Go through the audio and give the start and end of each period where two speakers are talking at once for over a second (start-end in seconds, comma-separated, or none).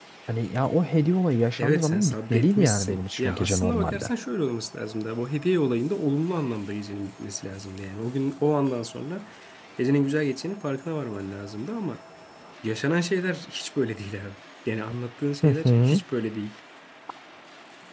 1.6-4.1